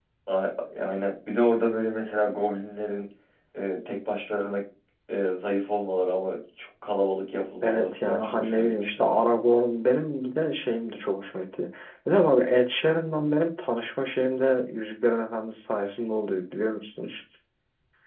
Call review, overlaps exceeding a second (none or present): present